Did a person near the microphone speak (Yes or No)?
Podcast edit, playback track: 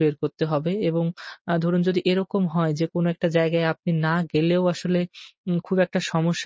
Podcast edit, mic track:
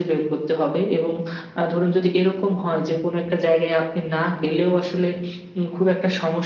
No